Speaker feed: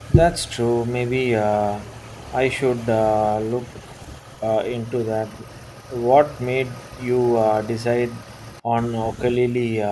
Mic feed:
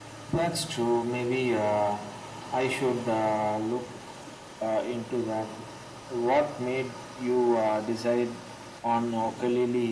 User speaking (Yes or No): No